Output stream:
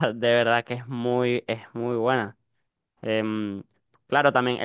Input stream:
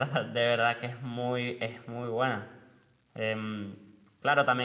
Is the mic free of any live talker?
Yes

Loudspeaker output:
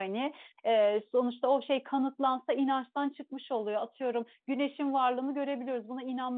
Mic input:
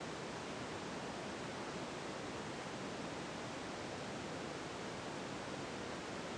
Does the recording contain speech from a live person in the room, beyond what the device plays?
No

